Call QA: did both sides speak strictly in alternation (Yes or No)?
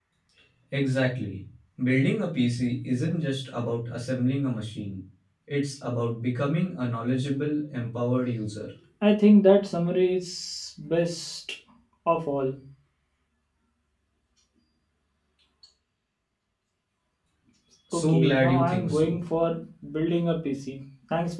No